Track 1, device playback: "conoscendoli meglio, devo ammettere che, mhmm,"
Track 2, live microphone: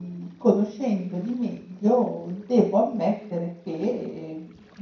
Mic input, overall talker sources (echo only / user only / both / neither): echo only